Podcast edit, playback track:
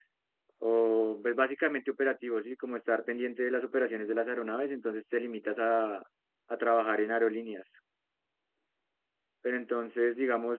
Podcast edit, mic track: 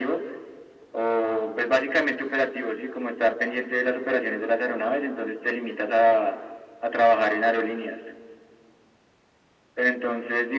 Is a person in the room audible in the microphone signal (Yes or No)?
No